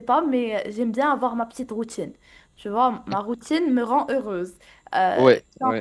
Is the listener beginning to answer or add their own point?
No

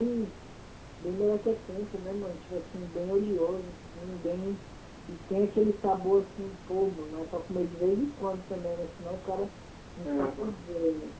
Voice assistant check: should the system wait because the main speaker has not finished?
No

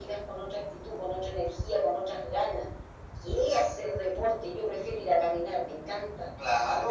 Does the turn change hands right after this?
Yes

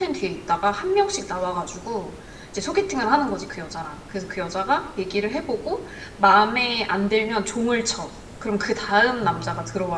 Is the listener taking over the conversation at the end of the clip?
Yes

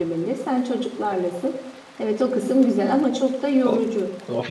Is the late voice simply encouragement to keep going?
No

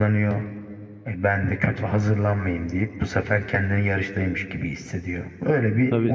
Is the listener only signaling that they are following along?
No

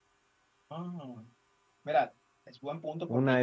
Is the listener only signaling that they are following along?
No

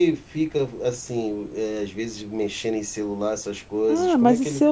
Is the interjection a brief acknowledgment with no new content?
No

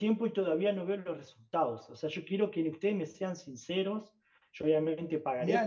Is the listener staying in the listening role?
No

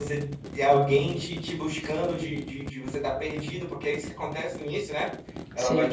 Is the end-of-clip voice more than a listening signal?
No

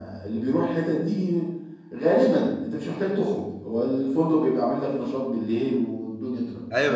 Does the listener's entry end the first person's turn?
Yes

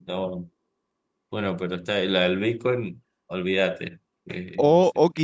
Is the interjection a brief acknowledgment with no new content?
No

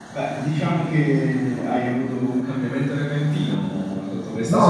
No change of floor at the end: No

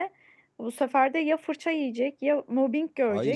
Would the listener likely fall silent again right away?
No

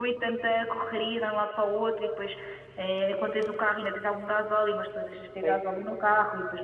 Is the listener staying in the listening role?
Yes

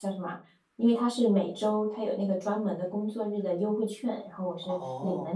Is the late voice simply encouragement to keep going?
No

